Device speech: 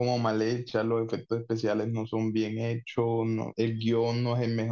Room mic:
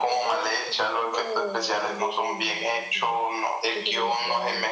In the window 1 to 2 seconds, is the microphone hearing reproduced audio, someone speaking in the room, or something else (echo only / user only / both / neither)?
both